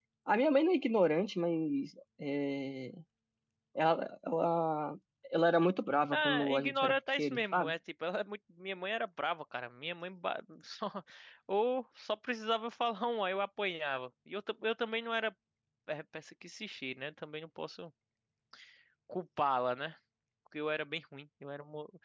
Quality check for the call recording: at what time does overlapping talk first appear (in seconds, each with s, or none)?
6.1 s